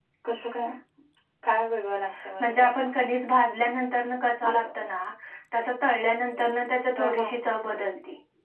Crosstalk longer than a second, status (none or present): none